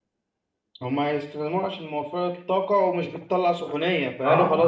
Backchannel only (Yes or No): Yes